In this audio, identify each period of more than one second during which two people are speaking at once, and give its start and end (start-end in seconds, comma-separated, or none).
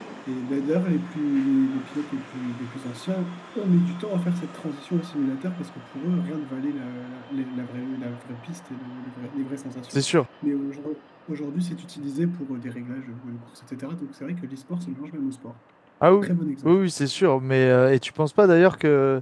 none